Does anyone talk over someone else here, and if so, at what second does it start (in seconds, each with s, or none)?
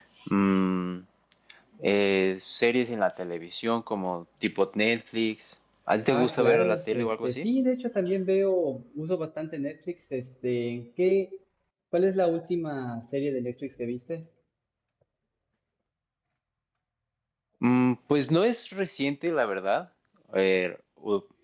6.0 s